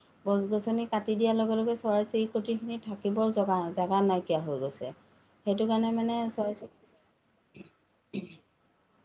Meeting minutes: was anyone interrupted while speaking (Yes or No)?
No